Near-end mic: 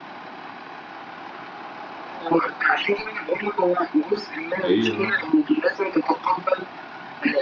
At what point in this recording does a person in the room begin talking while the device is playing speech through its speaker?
4.6 s

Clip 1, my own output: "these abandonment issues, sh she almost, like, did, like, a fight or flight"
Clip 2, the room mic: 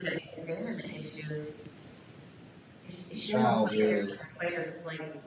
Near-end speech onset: 3.1 s

